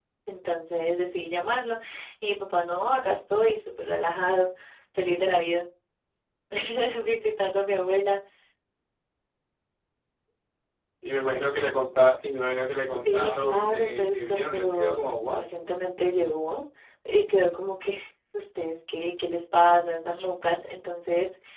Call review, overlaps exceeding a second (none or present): present